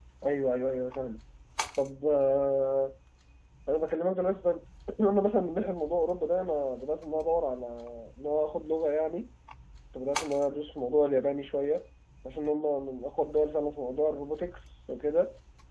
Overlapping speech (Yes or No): No